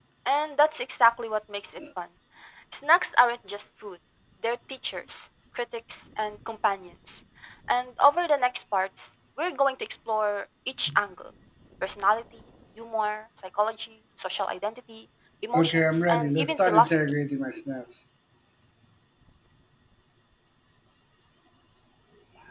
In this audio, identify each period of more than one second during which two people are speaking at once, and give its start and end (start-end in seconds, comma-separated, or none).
15.5-17.0